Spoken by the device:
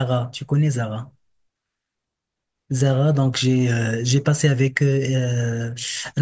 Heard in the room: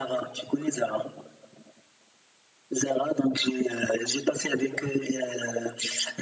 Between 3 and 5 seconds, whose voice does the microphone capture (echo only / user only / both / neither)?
echo only